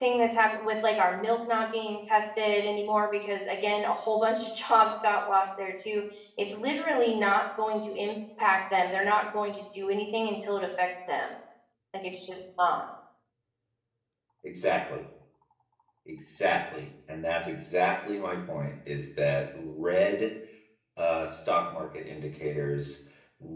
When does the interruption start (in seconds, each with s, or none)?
none